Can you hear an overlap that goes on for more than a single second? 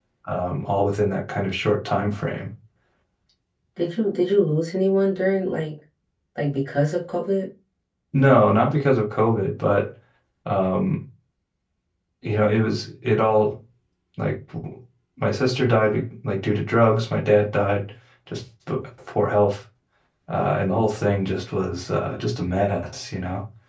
No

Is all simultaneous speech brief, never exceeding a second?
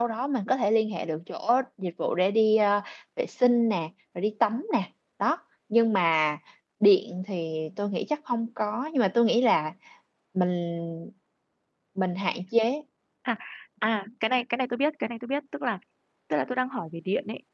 Yes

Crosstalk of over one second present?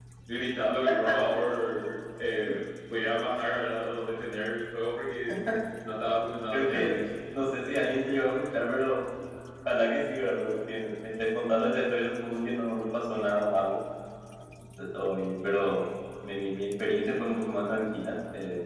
No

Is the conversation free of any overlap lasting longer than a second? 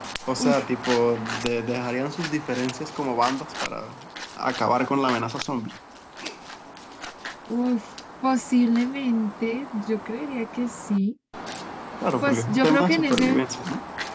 No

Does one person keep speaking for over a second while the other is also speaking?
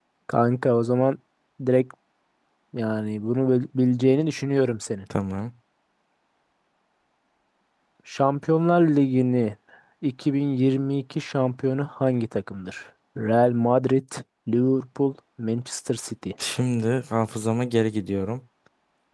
No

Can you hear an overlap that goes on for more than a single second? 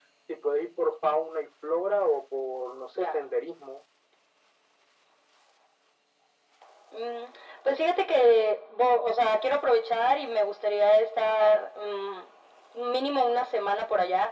No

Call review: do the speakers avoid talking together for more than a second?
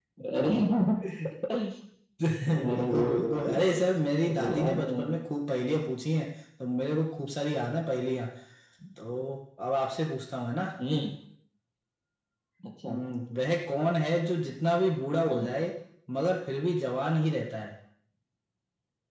No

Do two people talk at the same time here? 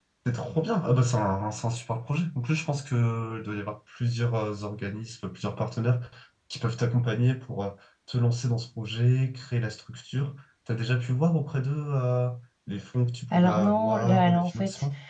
Yes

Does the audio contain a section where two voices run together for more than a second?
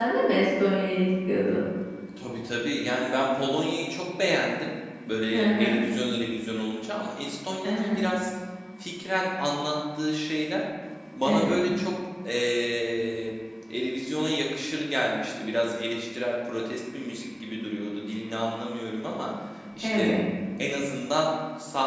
No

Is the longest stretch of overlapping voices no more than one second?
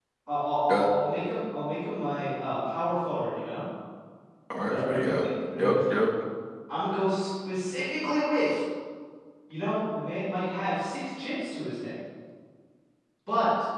No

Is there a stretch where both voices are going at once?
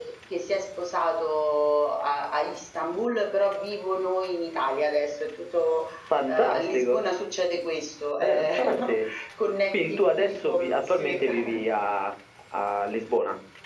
Yes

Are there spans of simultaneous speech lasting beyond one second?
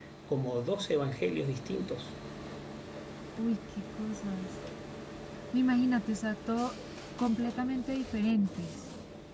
No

